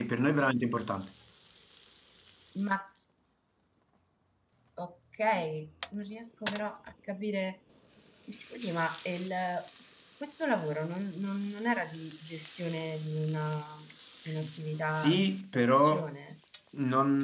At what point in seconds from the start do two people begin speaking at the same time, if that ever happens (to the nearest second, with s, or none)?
15 s